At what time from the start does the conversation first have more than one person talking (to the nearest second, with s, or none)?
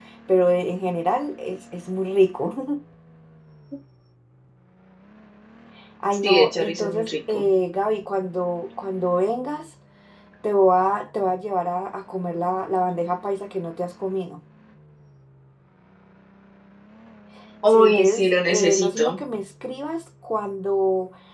6 s